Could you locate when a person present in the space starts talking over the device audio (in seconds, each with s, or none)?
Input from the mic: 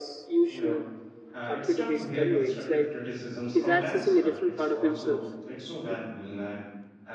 0.5 s